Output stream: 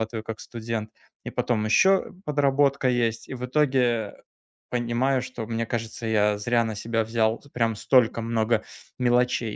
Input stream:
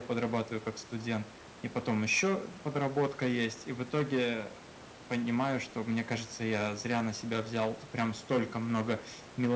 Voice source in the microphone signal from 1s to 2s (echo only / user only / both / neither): echo only